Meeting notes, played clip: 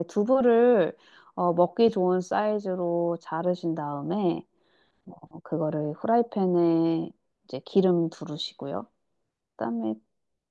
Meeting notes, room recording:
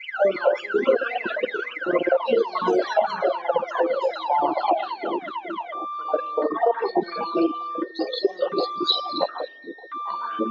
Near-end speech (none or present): none